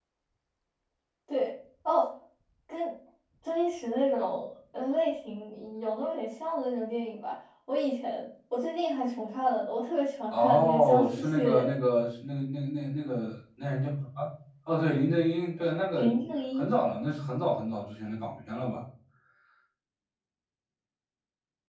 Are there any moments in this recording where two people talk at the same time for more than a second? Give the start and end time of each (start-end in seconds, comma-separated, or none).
10.3-11.7